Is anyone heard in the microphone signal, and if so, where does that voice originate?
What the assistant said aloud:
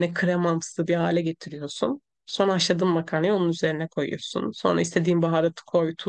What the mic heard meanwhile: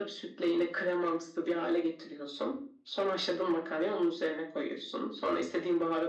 echo only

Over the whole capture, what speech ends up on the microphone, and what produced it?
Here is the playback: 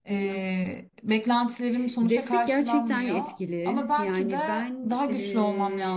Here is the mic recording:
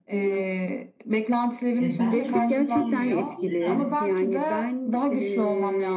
both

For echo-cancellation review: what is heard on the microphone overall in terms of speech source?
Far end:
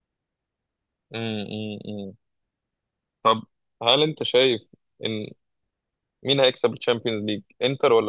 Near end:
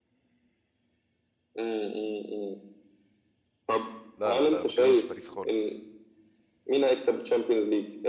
both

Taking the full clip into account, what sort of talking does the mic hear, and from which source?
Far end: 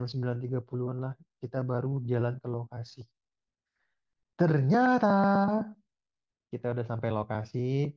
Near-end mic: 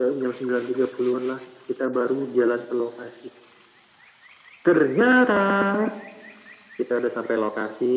echo only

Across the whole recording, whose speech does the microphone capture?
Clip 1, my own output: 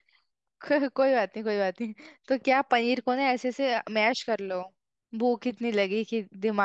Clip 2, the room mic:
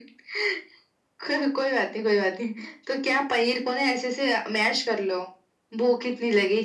echo only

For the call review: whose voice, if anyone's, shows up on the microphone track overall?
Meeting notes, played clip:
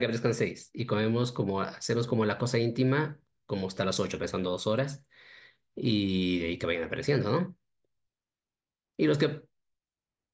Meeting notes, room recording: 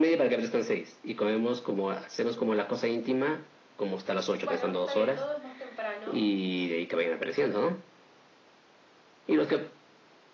both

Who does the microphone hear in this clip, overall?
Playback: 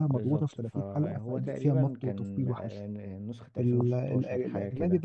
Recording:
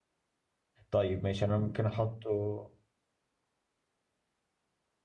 user only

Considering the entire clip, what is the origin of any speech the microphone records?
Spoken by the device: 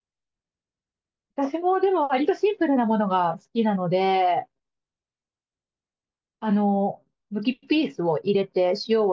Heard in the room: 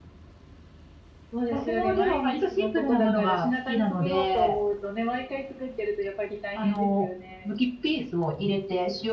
both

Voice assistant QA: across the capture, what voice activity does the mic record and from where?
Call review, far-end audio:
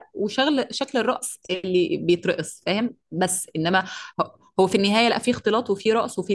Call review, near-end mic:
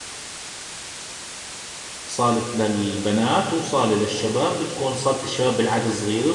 user only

